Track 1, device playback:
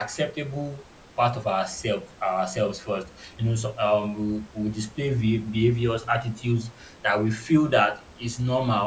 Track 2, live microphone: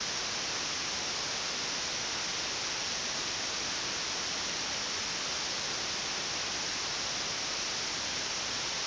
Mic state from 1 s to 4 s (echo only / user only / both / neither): neither